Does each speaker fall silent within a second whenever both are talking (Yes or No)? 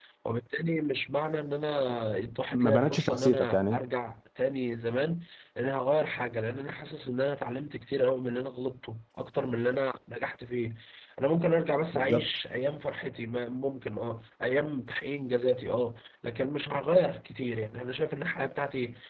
No